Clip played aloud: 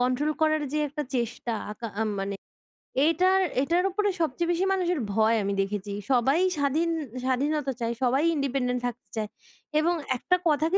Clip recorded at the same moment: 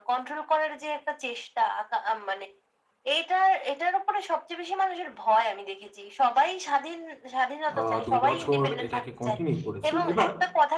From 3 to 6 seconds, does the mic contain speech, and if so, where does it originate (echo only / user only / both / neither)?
echo only